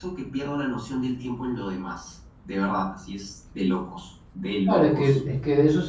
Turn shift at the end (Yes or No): Yes